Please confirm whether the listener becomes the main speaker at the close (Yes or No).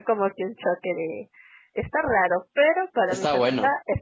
No